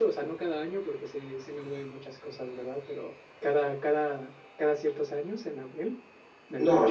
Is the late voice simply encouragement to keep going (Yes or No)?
No